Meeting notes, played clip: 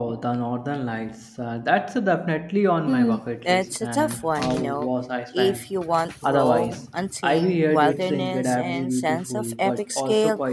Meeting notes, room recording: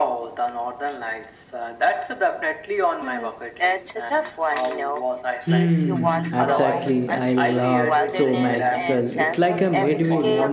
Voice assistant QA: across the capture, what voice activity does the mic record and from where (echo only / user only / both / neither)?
both